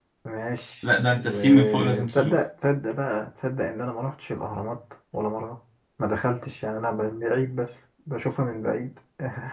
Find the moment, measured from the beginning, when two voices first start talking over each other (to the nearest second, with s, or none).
1 s